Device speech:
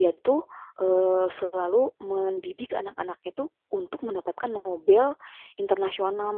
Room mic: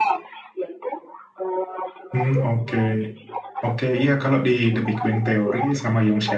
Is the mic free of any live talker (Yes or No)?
No